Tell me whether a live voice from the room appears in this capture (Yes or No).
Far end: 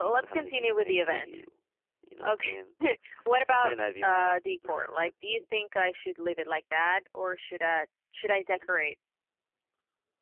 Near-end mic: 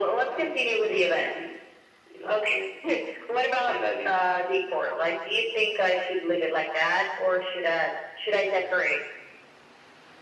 No